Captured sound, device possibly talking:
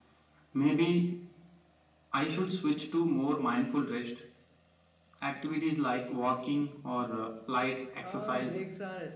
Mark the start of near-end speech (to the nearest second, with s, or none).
8 s